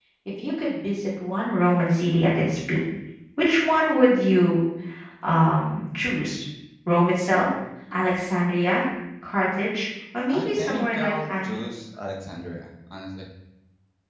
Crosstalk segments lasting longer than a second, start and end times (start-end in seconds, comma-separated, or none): 10.3-11.7